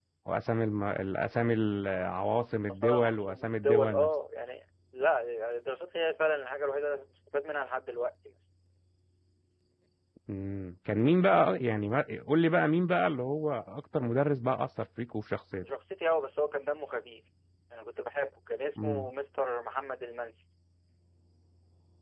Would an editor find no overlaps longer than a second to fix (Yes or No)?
No